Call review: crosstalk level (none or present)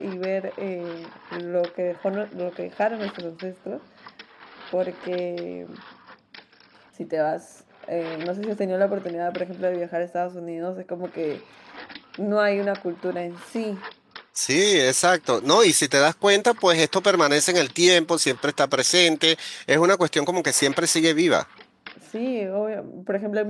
none